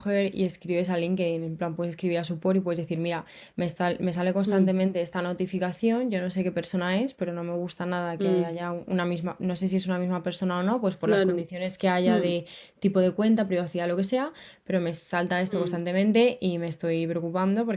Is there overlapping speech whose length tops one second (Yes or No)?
No